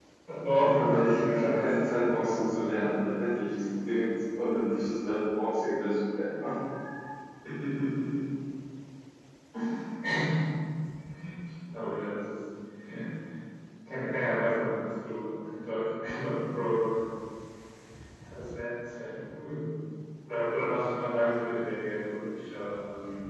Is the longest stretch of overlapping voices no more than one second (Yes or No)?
No